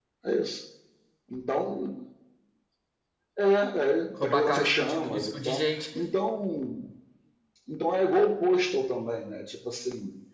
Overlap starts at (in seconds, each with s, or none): 4.2 s